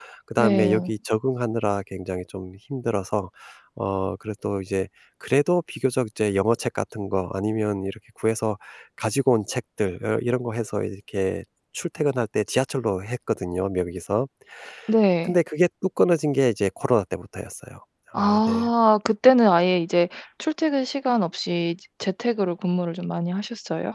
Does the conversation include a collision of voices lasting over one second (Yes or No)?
No